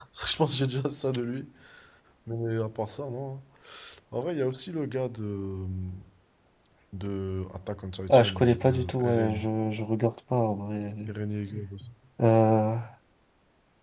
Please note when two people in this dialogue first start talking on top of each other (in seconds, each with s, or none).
8.1 s